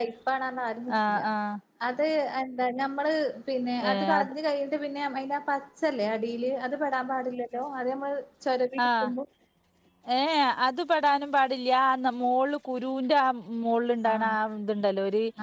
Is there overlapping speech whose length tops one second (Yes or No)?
No